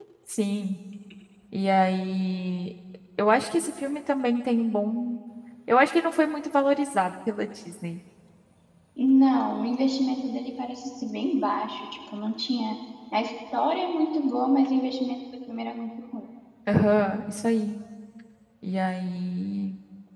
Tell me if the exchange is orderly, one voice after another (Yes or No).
Yes